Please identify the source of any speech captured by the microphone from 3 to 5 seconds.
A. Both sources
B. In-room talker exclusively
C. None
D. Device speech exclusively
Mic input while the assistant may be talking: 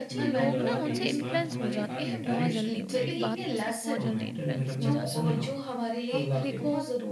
A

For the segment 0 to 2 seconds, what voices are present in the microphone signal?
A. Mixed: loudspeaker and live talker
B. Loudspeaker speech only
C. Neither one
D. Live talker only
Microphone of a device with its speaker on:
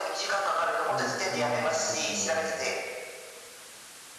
A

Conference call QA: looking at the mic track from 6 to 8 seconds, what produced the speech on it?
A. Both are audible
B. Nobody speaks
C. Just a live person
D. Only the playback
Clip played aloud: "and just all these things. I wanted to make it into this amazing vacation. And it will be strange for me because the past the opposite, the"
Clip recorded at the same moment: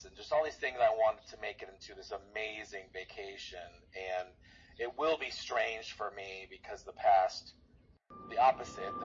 D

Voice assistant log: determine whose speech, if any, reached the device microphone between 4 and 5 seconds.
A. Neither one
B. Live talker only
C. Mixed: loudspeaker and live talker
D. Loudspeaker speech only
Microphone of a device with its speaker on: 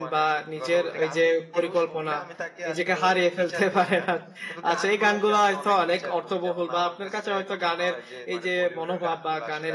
C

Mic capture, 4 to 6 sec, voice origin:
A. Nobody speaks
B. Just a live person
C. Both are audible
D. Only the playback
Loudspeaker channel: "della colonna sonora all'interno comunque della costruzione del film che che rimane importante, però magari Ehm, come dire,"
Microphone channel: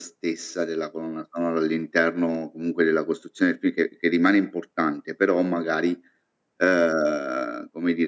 D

